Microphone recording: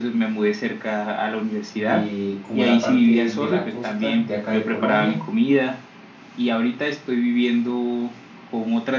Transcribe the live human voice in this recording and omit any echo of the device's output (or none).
de como la parte de la costa de acá de Colombia.